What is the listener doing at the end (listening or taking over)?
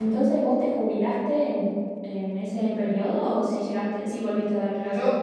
taking over